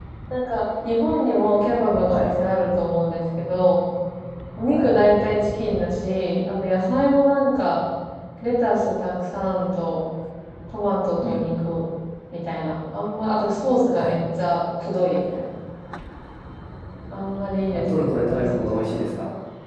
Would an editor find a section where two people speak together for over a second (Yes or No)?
Yes